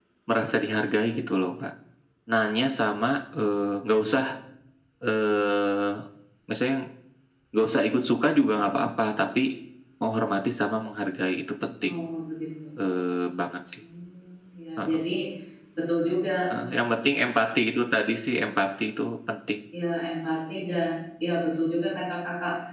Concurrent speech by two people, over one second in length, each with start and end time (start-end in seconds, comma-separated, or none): none